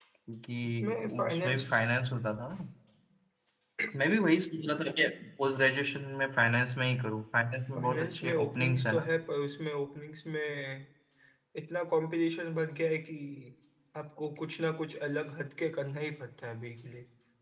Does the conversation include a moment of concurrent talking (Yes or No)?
Yes